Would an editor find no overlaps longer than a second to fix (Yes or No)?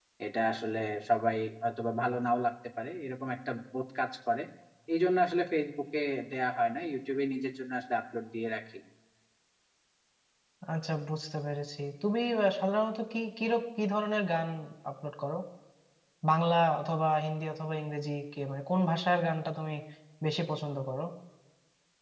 Yes